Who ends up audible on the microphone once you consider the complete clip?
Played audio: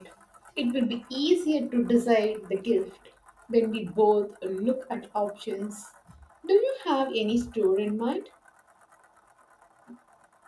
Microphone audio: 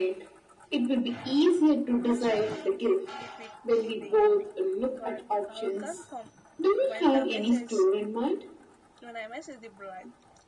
both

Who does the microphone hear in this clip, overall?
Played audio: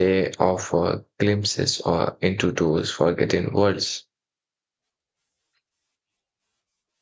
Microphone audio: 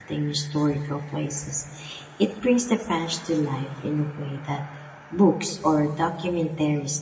user only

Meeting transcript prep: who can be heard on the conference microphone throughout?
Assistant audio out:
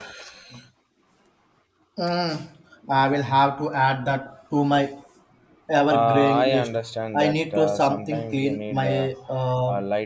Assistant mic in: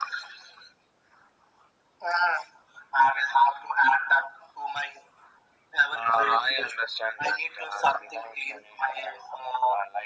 echo only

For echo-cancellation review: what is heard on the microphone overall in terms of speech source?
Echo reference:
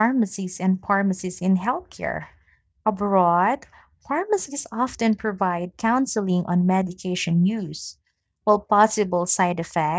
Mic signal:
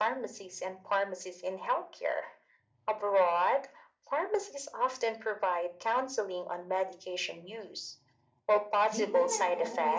both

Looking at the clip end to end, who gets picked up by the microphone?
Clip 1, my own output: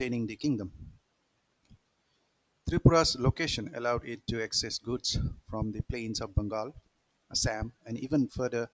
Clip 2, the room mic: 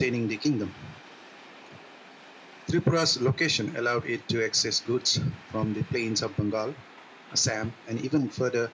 echo only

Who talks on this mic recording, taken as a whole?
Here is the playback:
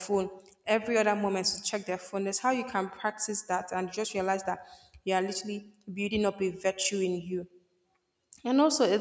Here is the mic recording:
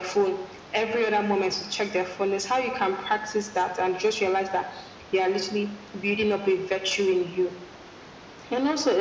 echo only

